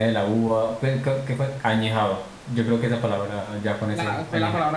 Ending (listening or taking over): taking over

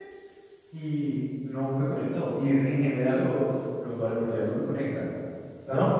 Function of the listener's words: listening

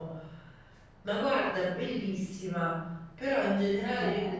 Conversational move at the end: listening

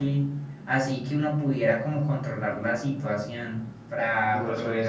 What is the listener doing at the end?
taking over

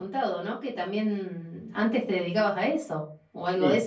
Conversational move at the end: taking over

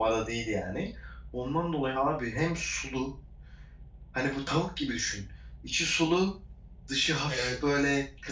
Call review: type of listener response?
listening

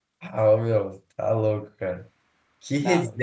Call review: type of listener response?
listening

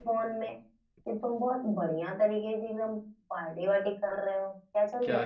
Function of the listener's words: taking over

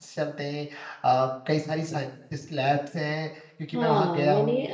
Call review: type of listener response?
taking over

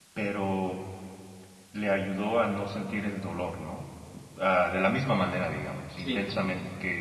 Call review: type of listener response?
listening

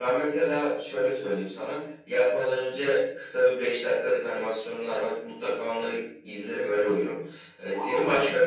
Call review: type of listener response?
listening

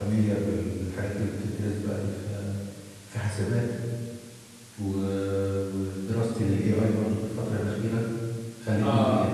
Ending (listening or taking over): taking over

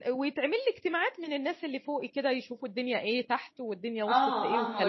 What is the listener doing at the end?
taking over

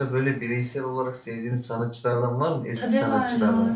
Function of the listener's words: taking over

